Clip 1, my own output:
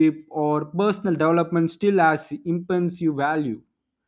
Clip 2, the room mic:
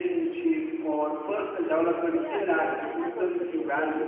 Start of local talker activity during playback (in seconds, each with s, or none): 2.0 s